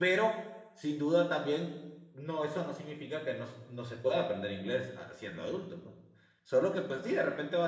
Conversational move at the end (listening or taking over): listening